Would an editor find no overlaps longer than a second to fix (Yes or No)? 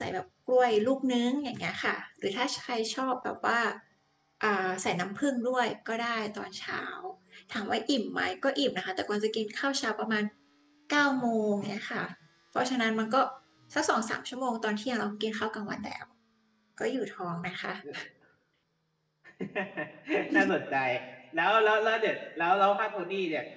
Yes